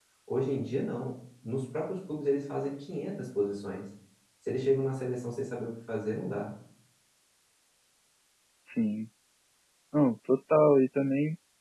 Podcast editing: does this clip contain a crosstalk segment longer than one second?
No

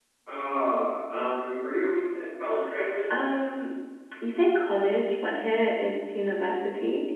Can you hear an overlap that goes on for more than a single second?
No

